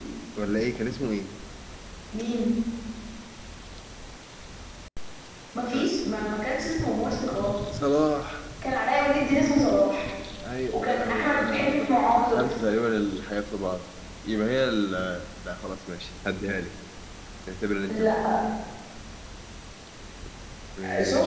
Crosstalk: present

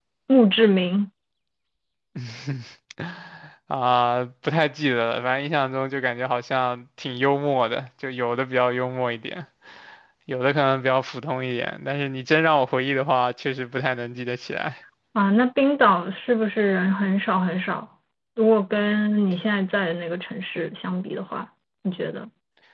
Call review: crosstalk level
none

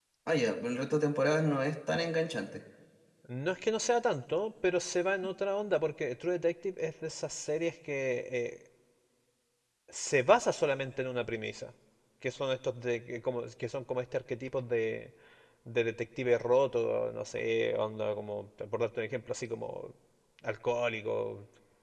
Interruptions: none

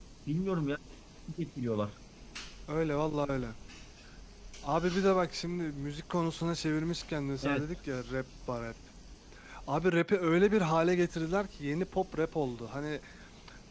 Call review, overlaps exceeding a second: none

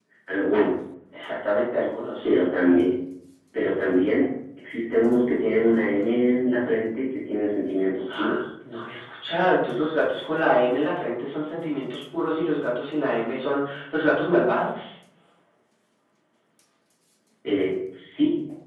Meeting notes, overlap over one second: none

